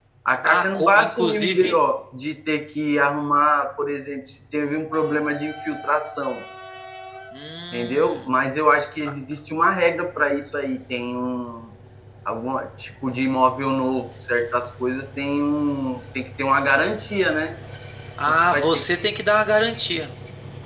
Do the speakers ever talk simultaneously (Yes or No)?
Yes